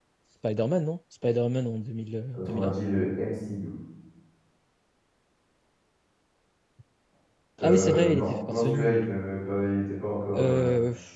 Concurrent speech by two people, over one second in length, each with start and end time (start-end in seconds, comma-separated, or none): 7.6-9.0